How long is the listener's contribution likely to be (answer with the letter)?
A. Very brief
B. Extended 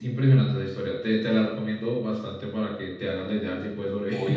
B